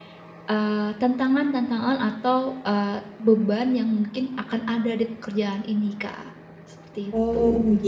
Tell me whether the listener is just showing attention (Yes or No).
No